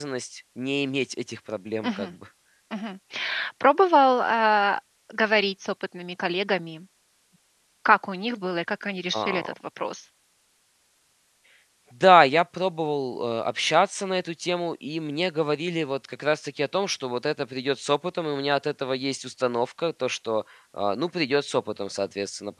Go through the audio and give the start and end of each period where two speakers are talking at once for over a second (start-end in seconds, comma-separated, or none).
none